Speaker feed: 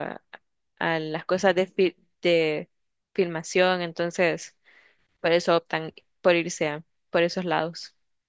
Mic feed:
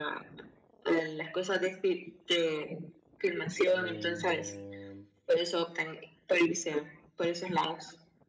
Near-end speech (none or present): present